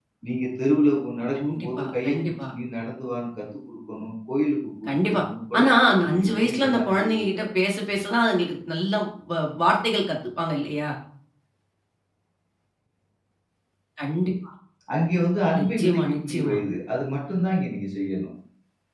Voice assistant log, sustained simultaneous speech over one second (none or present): present